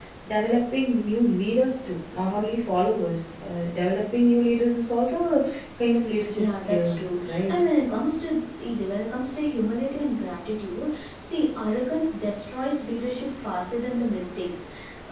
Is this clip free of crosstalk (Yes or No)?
No